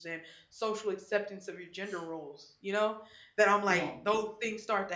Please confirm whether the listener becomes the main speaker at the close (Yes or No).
No